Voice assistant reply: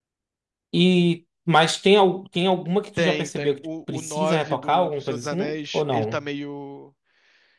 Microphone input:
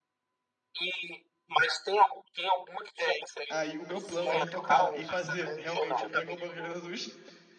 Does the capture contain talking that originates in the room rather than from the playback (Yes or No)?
Yes